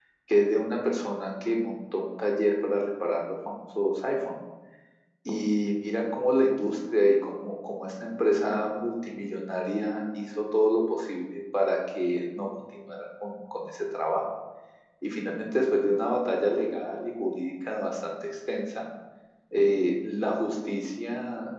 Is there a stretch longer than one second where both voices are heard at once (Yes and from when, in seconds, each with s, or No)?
No